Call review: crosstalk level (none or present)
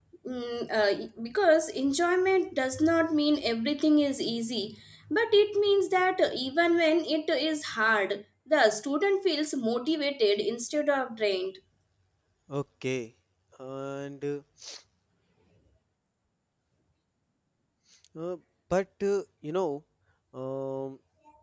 none